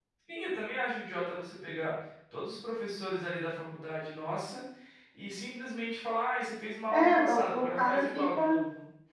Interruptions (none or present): present